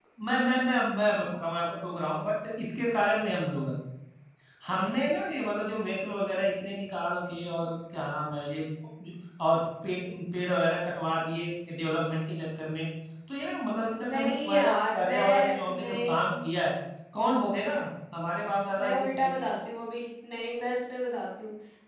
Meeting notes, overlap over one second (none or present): present